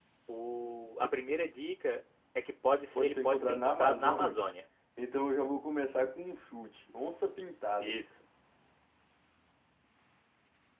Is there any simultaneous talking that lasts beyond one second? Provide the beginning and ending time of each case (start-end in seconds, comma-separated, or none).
3.0-4.4